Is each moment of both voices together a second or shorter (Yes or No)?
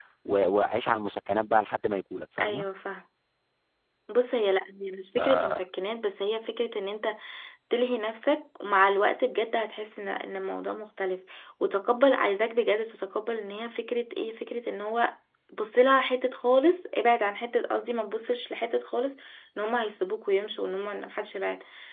Yes